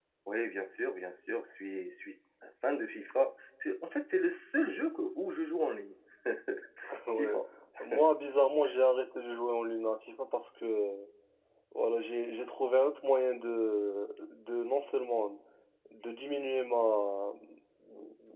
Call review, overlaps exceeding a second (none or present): none